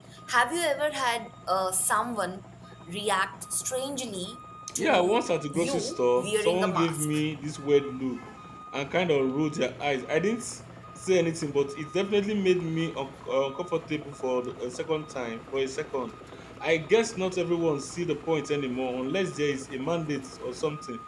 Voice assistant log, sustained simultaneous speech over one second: present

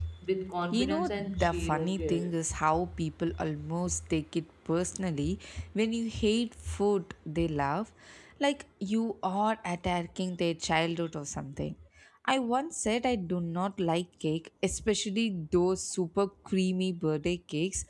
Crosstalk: present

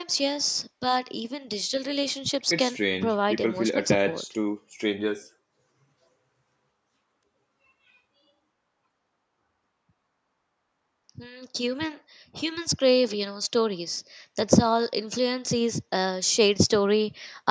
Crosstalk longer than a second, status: present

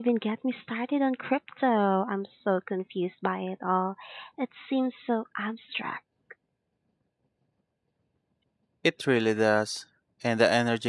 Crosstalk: none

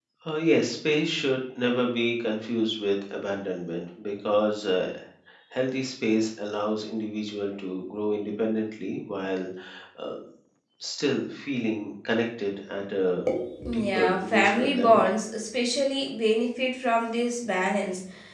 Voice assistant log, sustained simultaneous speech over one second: present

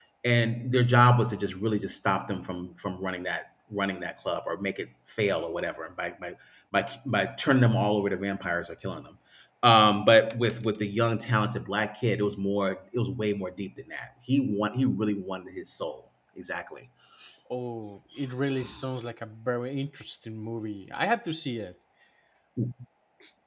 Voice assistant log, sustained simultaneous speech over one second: none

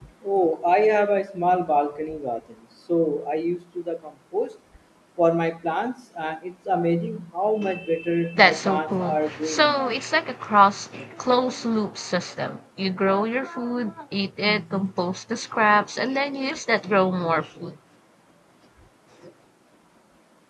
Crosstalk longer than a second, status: present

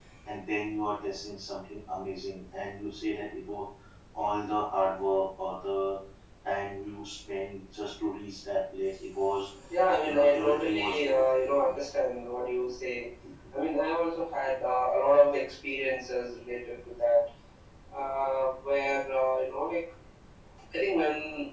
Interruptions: present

